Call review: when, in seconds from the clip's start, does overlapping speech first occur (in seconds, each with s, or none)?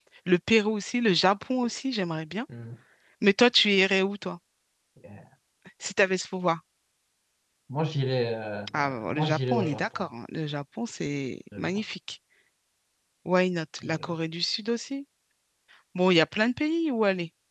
8.7 s